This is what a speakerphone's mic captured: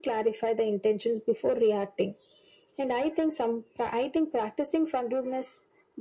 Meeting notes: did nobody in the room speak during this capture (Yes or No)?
Yes